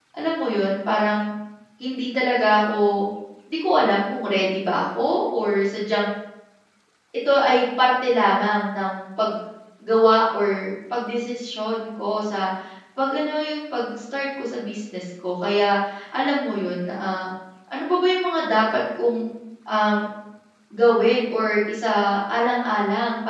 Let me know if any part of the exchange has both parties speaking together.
No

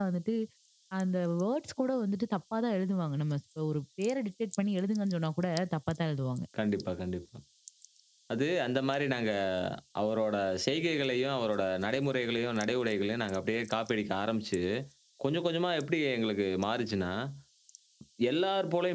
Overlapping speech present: No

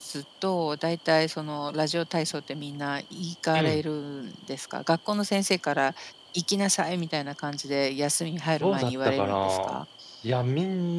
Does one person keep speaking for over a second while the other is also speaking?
Yes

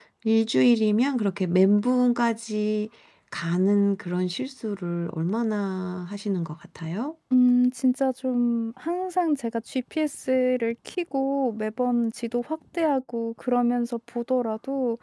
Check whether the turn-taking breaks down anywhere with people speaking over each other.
No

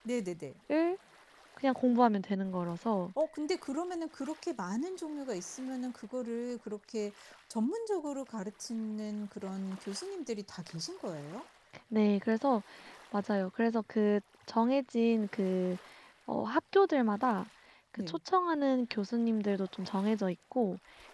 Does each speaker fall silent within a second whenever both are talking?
Yes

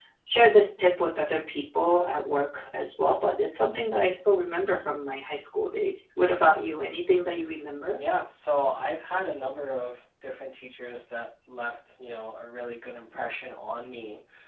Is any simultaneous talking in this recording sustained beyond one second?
No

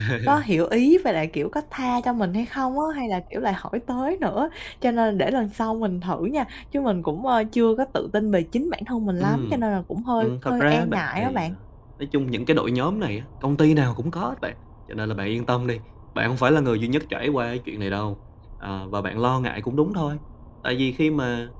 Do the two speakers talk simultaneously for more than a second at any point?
Yes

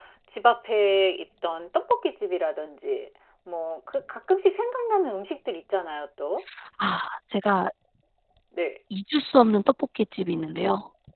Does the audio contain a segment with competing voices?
No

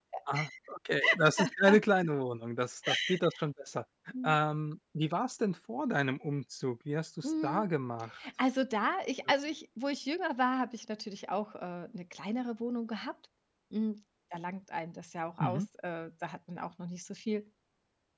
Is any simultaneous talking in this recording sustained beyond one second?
No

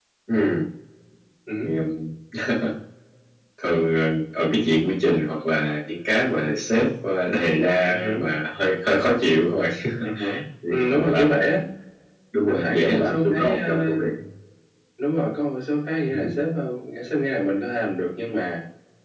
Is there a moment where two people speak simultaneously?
Yes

